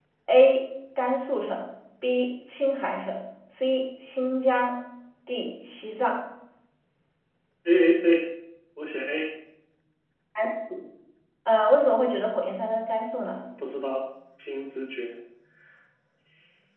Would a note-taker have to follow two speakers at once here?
No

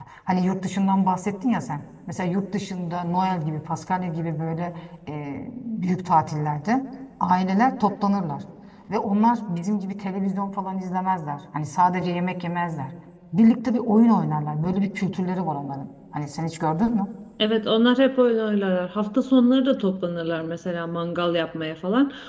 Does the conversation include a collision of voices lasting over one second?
No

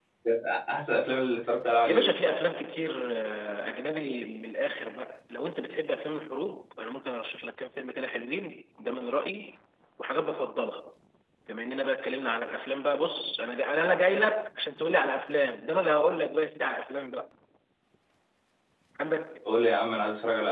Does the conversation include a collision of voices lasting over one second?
No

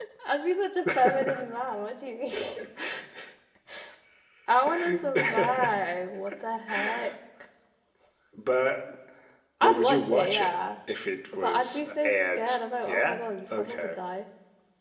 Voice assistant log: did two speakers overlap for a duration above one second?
Yes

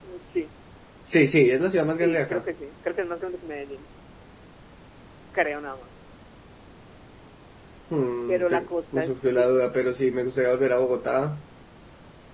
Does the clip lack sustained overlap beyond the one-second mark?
No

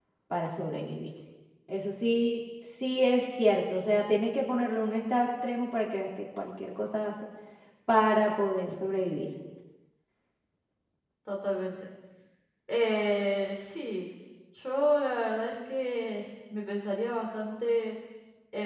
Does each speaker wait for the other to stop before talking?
Yes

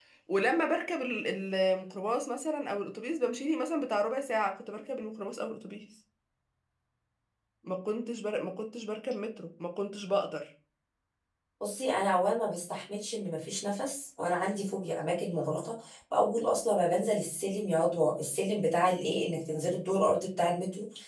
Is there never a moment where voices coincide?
Yes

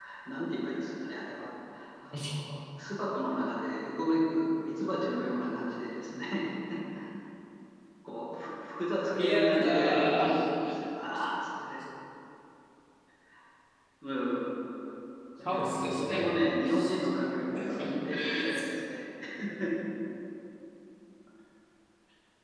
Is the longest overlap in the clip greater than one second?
Yes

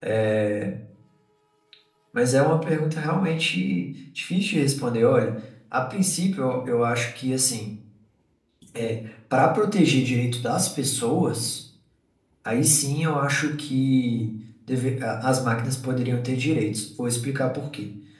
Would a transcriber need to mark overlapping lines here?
No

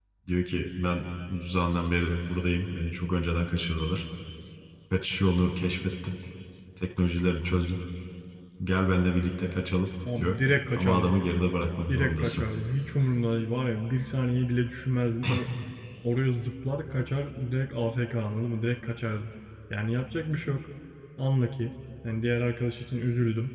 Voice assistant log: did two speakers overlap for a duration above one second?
No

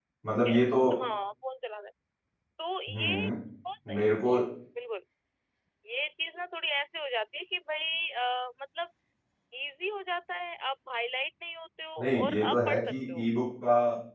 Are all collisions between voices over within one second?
No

